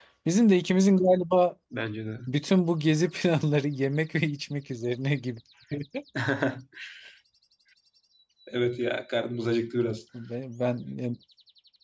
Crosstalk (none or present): none